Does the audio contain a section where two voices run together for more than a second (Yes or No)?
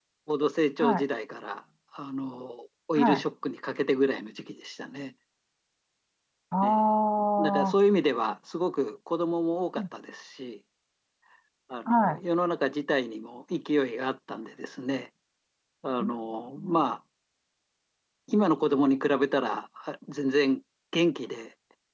No